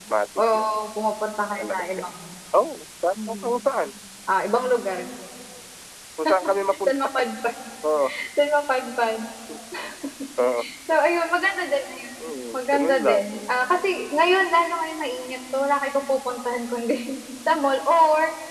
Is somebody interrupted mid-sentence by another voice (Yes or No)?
Yes